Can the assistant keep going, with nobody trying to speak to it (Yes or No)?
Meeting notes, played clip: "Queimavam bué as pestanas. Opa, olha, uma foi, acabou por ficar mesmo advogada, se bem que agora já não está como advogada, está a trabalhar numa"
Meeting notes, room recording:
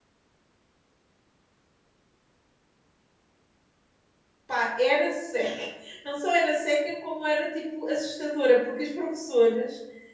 No